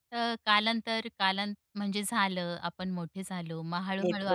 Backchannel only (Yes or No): No